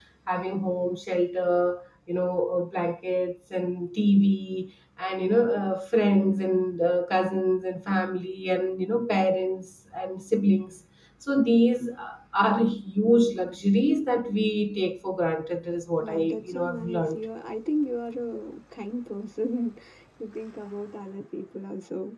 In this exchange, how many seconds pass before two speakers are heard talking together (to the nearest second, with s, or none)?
16 s